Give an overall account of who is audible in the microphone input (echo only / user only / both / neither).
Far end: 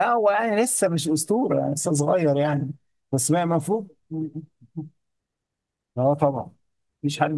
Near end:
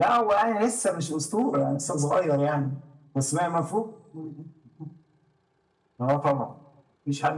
echo only